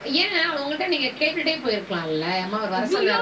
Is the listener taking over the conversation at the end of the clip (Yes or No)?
Yes